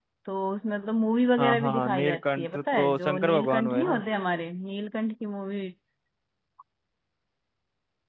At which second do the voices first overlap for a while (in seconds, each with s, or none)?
1.4 s